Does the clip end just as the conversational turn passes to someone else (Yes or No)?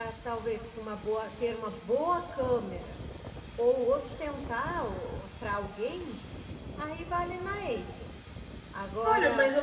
Yes